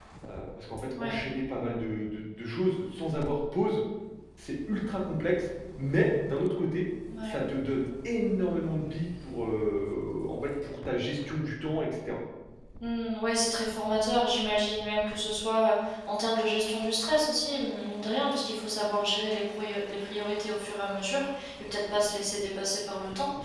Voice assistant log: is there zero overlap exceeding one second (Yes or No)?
Yes